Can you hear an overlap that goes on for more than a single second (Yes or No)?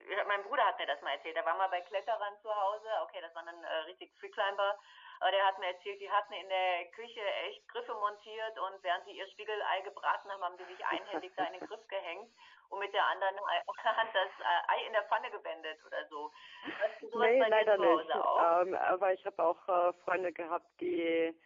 Yes